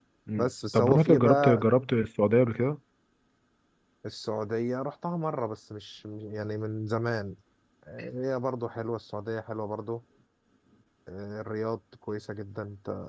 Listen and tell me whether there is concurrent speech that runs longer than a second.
Yes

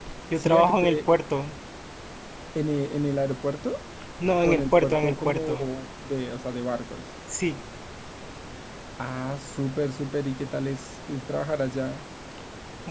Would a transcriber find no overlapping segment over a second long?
No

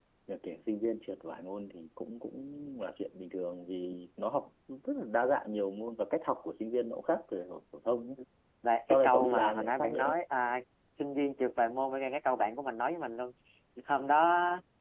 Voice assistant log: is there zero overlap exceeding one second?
No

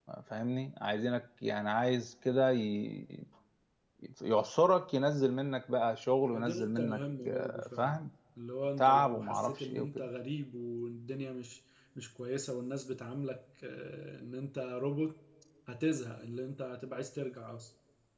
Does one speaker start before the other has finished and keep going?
Yes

